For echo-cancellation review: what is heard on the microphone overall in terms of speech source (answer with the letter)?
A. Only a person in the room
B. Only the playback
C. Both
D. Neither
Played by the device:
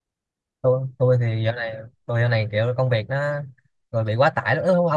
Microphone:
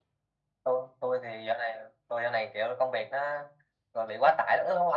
B